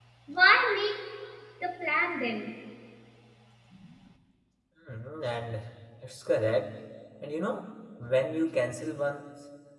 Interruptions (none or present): none